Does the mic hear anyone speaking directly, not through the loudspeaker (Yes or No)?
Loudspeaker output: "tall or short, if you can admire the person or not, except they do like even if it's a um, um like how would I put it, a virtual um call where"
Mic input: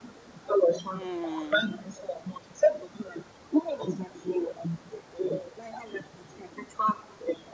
Yes